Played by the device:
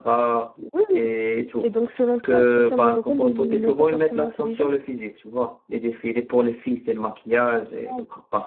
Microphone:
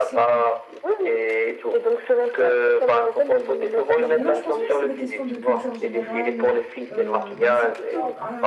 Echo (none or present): present